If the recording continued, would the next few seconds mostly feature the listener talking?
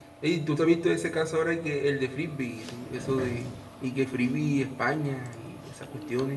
Yes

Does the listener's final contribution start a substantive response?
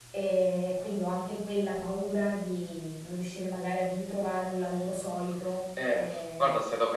Yes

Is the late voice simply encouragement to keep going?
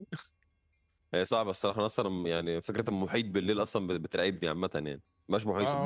No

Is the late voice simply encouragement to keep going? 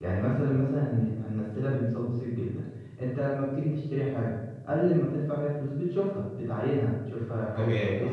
Yes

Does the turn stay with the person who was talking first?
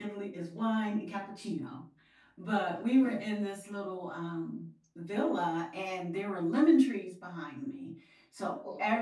Yes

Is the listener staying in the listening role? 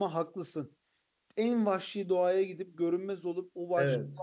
Yes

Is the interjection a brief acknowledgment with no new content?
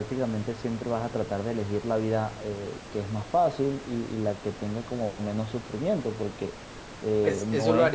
No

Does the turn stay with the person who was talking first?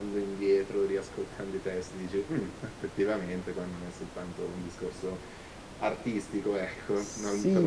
No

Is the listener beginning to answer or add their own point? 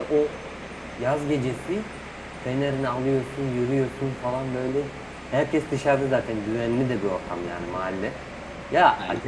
No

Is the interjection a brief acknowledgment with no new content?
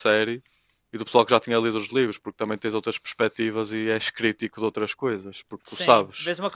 No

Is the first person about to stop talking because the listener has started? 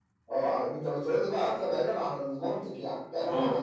Yes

